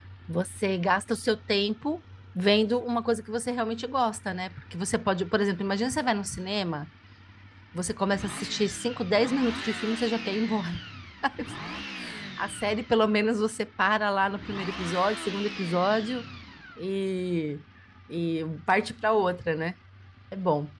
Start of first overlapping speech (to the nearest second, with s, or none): none